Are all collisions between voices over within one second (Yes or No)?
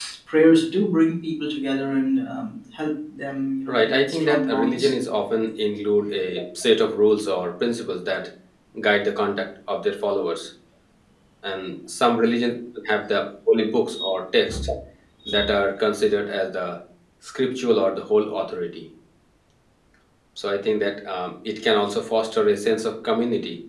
No